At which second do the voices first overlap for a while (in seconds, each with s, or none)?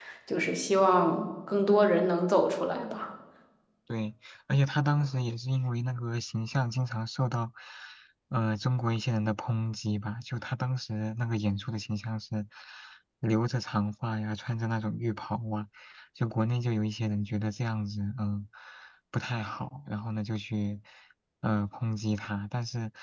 none